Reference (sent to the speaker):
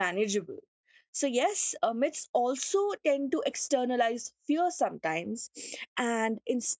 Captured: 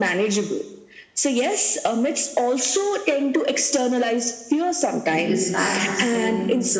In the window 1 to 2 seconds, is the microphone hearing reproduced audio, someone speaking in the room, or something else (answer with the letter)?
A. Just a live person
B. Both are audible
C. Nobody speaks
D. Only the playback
D